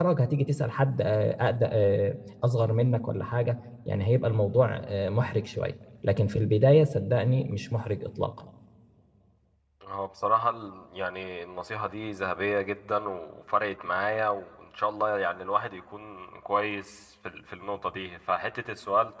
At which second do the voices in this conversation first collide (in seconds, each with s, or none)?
none